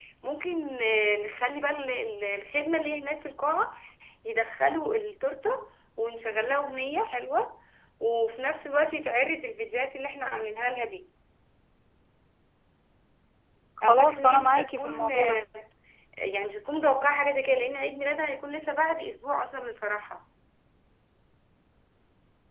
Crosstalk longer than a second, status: present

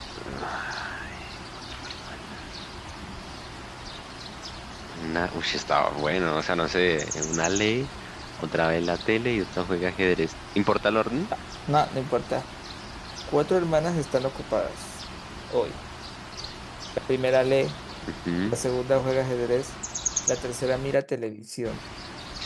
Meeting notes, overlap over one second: none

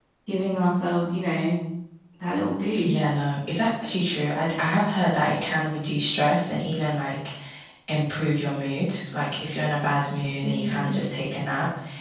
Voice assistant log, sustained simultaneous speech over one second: none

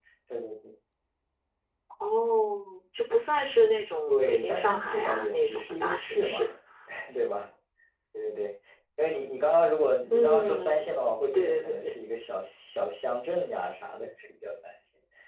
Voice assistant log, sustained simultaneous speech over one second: present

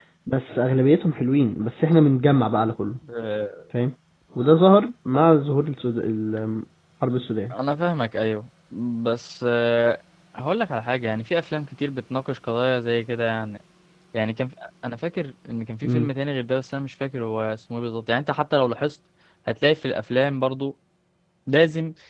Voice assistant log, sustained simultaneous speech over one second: none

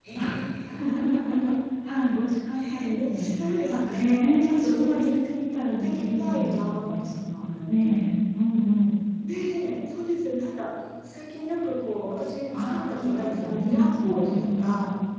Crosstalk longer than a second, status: present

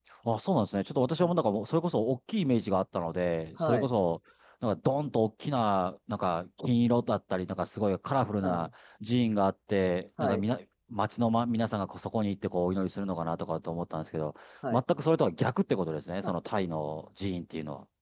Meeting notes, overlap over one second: none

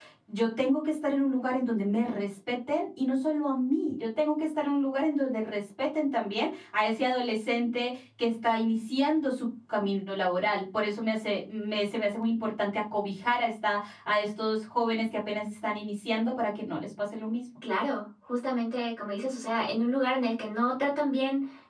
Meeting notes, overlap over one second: none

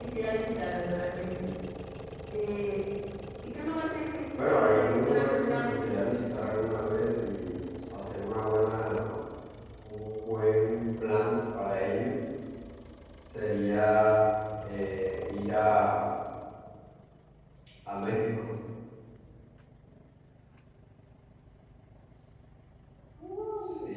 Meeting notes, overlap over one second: present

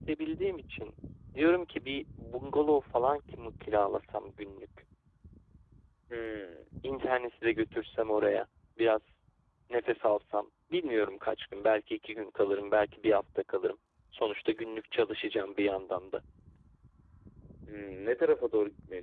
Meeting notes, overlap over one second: none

